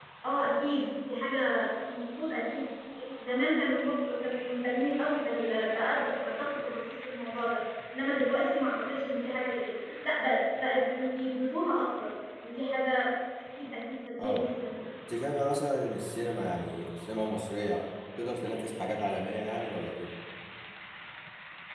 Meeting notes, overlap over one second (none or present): none